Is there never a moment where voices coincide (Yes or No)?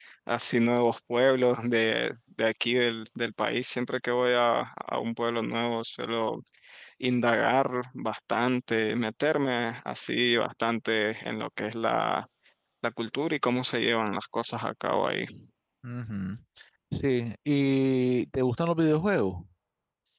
Yes